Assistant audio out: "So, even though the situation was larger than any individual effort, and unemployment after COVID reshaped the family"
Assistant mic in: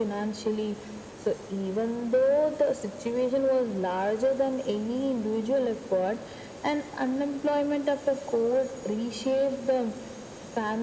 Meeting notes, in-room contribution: none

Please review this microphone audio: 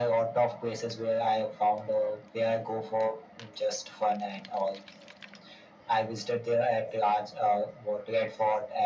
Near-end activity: none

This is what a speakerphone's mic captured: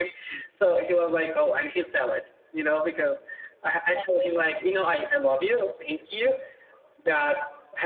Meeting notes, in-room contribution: none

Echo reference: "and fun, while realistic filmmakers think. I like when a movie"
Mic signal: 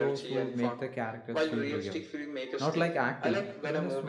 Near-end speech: present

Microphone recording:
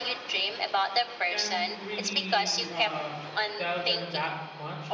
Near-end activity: present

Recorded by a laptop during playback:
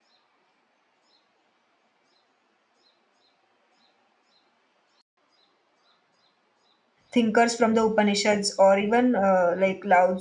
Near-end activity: present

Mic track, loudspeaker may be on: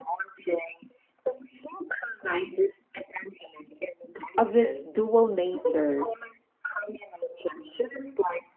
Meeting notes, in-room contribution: present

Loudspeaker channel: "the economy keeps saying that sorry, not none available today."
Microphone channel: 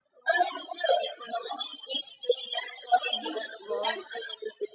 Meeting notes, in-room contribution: present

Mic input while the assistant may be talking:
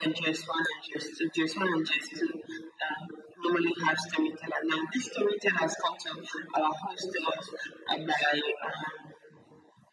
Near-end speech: none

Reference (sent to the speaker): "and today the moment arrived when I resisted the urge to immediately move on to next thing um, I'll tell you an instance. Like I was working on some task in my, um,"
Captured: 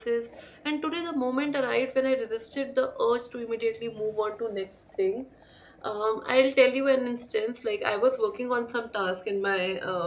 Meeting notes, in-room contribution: none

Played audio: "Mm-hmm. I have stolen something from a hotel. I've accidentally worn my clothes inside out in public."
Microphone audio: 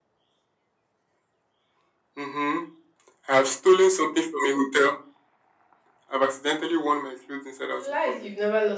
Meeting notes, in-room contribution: present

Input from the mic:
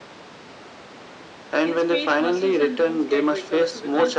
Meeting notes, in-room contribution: present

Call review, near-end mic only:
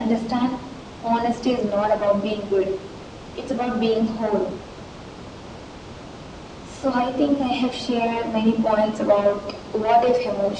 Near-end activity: none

